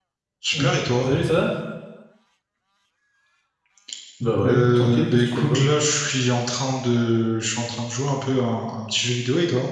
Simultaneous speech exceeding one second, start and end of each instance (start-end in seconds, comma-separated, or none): 4.4-5.7